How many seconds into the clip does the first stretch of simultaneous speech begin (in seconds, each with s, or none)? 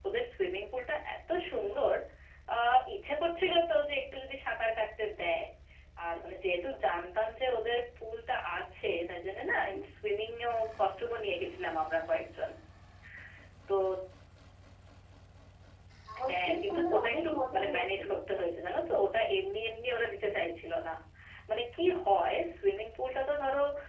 16.3 s